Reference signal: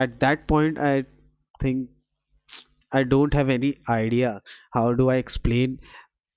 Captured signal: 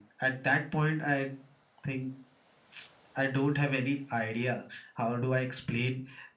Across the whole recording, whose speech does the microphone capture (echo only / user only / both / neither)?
echo only